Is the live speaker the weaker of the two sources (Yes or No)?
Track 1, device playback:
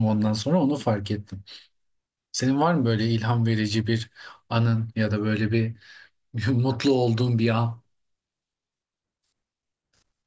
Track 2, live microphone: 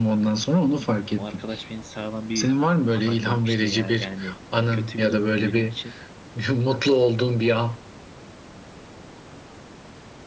Yes